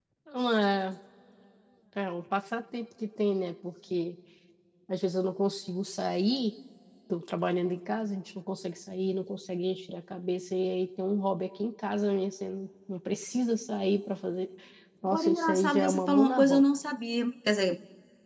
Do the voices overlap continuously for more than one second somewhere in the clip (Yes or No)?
Yes